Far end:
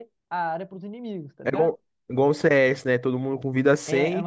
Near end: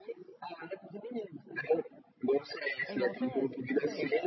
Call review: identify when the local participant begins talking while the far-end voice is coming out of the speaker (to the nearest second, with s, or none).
3 s